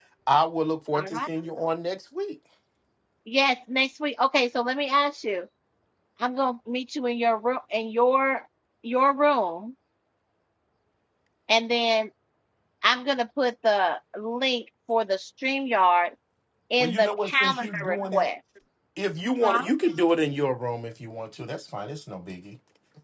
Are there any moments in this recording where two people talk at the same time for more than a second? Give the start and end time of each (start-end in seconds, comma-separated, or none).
16.8-18.3